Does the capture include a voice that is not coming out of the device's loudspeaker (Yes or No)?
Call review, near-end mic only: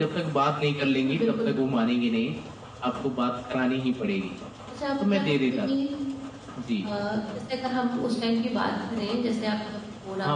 Yes